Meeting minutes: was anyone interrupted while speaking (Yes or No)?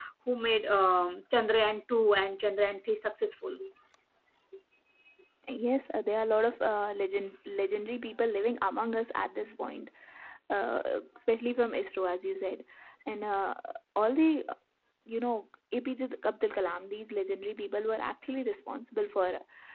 No